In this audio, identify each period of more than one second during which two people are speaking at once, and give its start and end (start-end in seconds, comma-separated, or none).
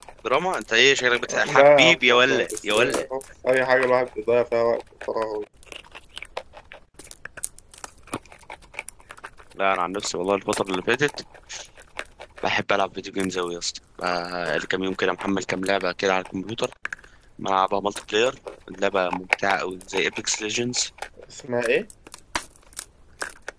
1.4-3.0